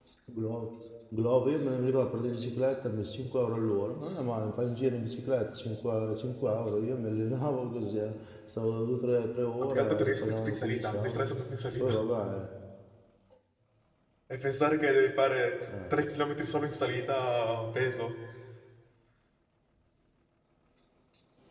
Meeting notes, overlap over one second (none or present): present